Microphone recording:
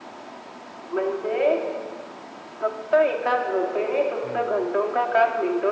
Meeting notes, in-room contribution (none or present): present